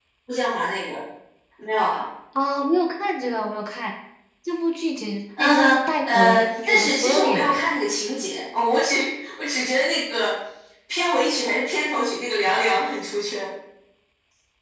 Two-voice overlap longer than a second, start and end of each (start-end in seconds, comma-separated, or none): 5.4-7.6